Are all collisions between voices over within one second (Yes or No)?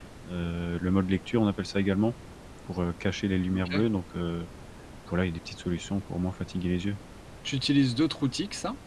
Yes